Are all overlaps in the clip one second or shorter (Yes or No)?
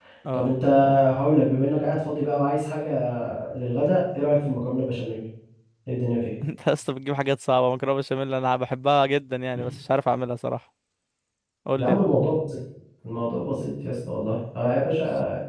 Yes